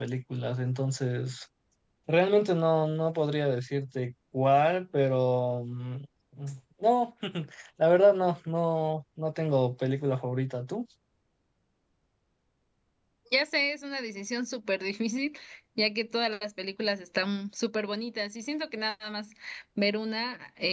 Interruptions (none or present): none